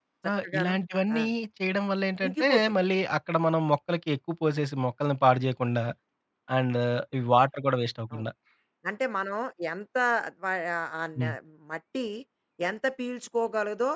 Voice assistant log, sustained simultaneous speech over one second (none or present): none